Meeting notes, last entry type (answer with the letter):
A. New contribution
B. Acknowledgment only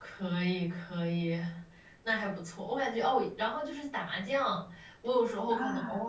B